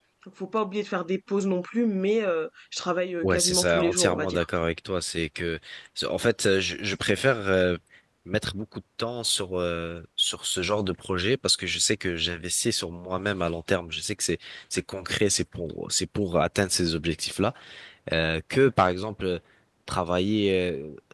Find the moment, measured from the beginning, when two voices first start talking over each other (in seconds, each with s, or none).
3.2 s